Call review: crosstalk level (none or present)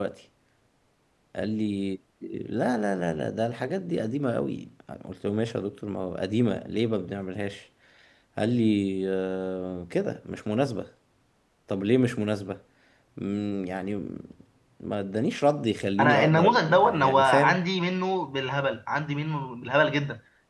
present